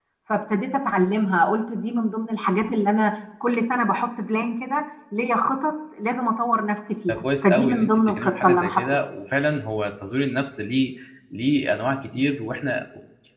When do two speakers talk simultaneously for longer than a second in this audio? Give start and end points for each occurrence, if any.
7.1-8.8

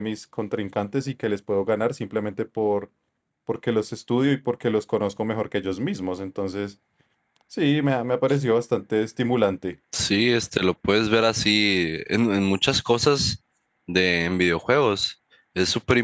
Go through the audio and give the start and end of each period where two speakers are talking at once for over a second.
none

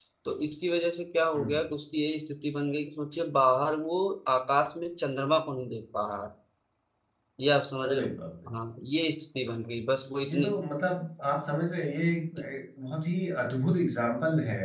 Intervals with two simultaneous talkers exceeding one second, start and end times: none

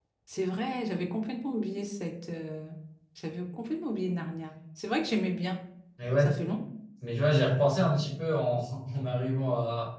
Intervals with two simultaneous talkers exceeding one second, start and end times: none

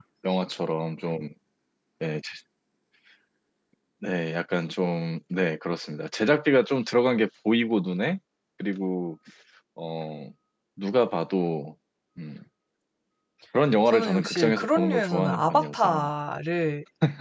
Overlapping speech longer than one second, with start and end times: 13.8-16.1

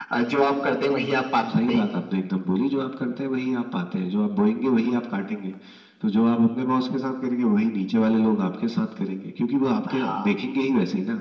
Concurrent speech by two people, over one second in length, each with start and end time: none

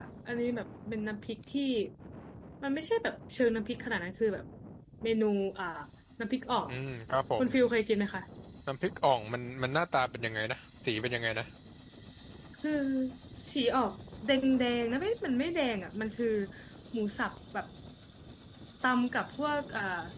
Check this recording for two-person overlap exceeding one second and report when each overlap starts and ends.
none

